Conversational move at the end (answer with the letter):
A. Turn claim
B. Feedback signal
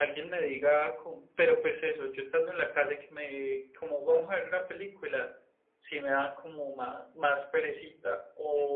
B